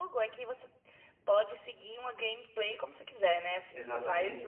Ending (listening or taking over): taking over